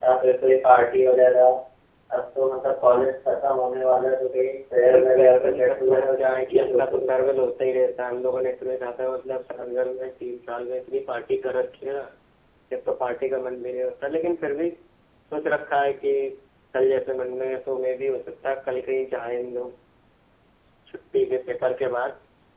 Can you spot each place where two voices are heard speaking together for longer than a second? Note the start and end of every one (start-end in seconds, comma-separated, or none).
4.9-7.3